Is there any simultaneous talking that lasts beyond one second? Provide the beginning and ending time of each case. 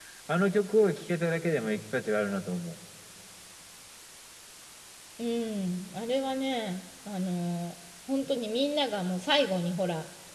none

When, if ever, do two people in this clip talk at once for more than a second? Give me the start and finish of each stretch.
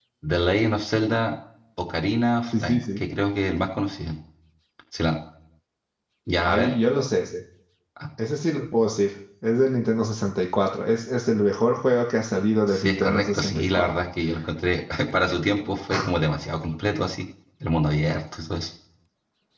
12.7-13.9

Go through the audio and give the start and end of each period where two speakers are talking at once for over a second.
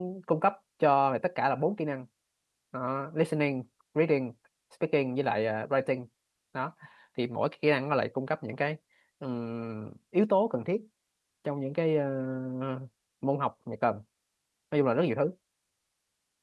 none

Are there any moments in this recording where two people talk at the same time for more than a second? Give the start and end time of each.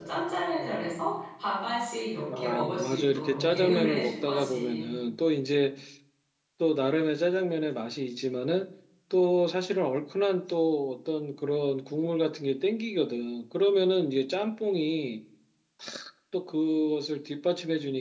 2.4-4.9

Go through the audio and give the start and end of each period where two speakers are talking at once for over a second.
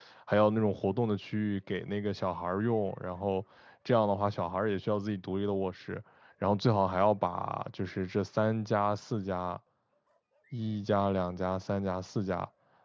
none

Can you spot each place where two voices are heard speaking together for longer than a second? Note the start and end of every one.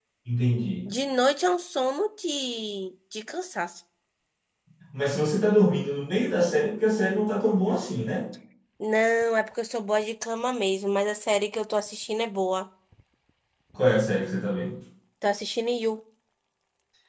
none

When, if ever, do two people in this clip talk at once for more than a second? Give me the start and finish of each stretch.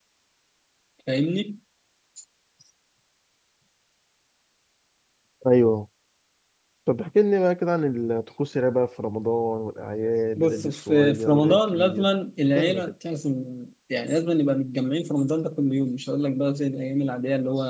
10.4-12.1

